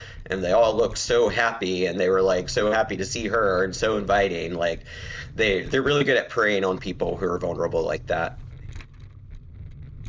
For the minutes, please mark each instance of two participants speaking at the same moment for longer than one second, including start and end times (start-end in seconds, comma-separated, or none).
none